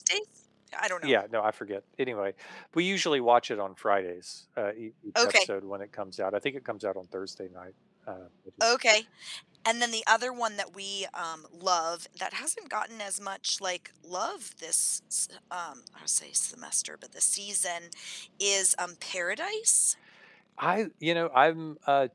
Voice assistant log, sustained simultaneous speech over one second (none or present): none